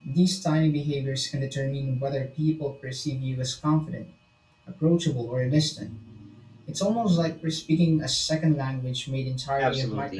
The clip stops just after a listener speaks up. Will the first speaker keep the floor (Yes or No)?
No